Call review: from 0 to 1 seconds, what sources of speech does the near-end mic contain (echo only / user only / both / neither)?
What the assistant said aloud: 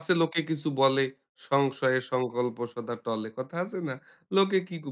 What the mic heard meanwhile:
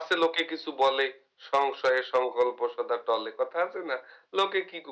echo only